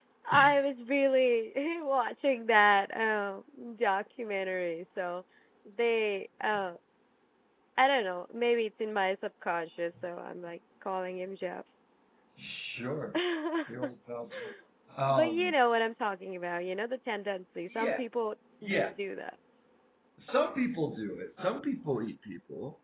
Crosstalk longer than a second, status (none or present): none